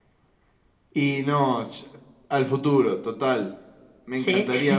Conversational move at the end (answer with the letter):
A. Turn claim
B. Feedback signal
B